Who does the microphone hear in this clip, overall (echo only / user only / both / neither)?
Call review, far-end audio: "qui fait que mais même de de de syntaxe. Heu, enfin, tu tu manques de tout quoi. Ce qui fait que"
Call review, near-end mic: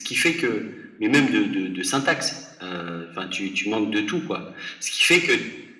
echo only